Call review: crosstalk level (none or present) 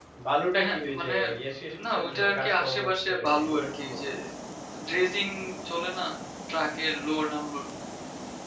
present